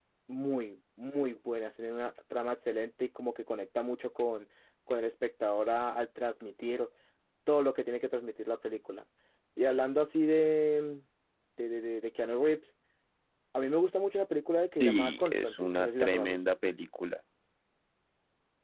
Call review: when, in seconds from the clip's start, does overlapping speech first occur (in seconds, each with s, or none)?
14.8 s